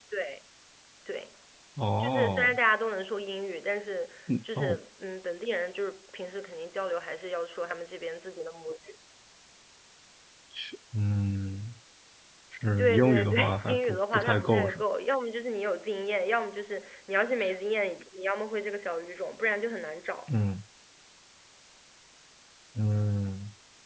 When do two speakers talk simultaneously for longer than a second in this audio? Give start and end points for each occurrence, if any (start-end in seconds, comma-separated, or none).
12.8-14.8